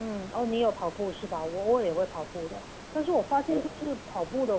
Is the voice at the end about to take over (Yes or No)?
No